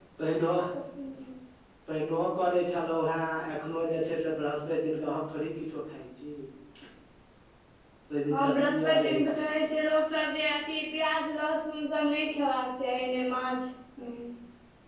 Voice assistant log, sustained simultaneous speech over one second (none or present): present